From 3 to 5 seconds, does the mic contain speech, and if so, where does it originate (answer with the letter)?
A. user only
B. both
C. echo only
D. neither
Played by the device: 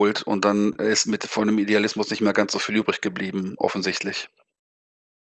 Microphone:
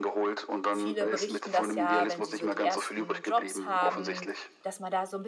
B